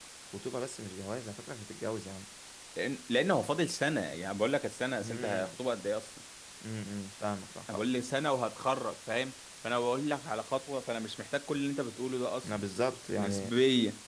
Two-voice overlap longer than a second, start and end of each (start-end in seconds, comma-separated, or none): none